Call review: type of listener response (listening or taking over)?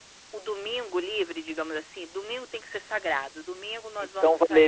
taking over